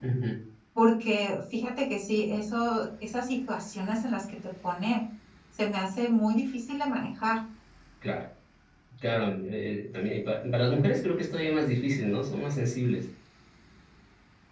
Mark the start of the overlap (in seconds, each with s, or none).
none